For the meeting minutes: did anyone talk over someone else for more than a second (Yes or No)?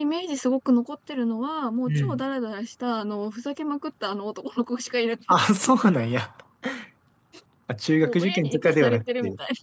Yes